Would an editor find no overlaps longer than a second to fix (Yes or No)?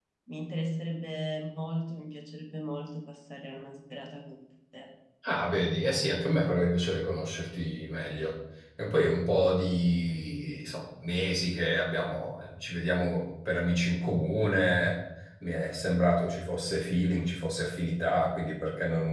Yes